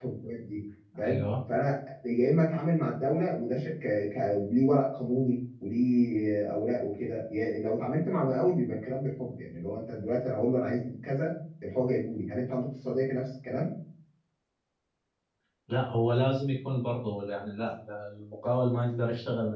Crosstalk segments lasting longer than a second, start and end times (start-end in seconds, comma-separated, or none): none